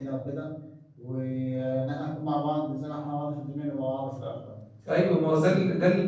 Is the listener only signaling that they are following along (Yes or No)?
No